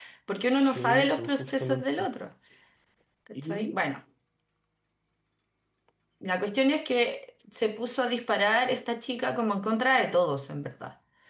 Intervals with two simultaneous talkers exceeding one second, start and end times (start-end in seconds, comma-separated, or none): 0.5-2.1